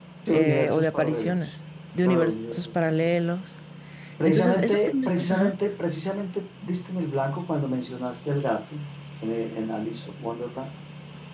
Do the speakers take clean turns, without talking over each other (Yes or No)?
No